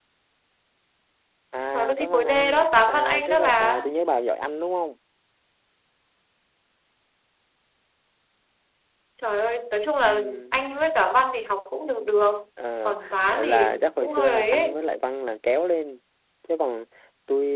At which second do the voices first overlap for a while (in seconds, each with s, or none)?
1.7 s